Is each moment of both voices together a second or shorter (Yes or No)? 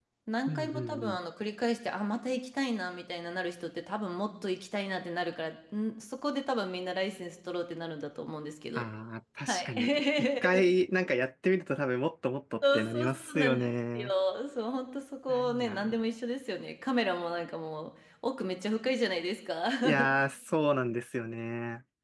No